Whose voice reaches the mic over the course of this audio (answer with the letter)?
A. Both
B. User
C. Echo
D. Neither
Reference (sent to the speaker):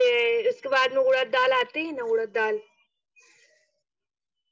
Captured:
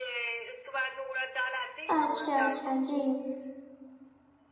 A